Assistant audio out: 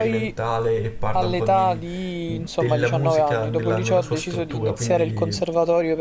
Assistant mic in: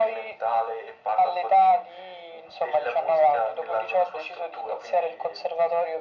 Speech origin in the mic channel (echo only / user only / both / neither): echo only